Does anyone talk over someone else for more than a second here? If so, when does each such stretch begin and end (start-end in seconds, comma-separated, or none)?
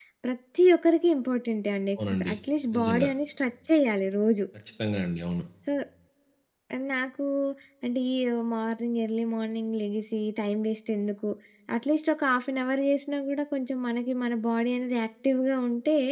none